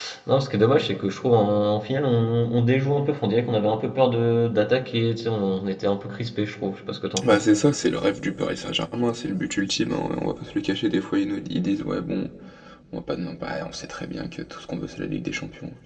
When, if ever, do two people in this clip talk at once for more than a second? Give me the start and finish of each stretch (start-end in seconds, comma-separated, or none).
none